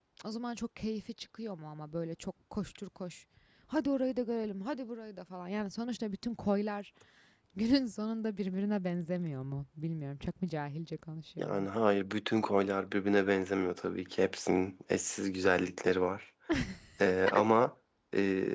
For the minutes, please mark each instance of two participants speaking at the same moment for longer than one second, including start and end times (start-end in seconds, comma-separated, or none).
none